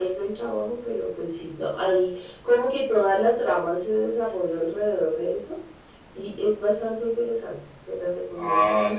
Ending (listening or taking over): taking over